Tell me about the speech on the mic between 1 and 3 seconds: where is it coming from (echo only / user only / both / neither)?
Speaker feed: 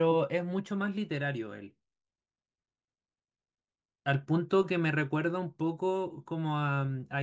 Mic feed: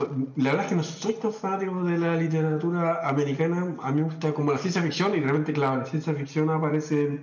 user only